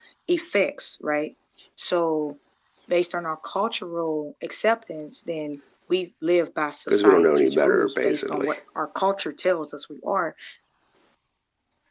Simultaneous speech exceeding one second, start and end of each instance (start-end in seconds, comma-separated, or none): 6.9-8.5